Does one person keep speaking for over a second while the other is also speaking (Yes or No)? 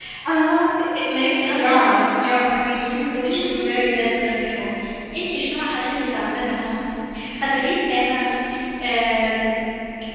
No